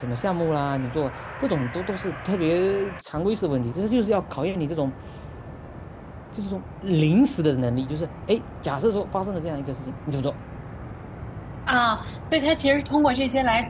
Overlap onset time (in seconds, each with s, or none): none